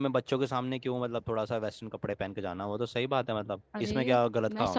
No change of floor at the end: No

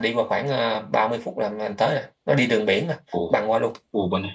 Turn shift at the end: Yes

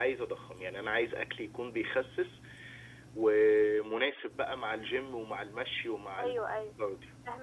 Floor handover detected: Yes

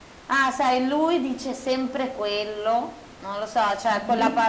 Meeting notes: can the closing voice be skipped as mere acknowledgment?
Yes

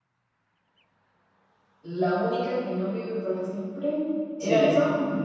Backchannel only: No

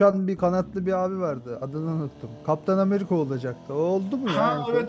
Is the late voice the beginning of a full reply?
Yes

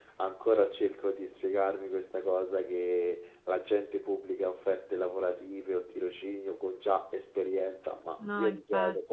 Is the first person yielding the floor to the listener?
No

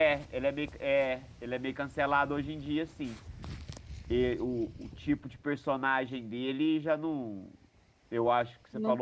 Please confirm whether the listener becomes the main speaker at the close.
No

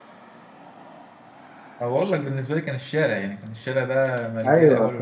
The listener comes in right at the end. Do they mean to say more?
Yes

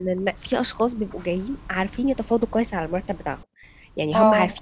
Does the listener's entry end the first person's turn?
No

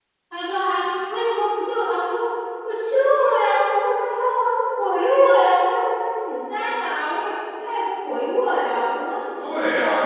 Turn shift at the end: Yes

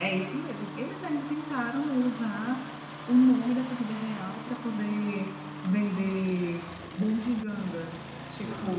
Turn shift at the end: No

